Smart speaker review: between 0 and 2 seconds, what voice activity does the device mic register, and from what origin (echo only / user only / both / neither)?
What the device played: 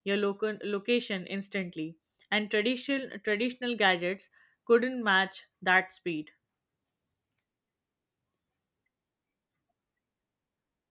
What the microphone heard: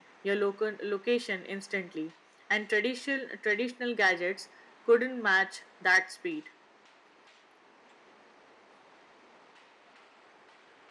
echo only